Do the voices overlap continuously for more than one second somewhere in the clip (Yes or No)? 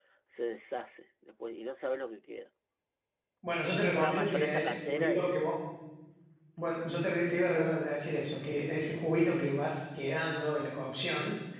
Yes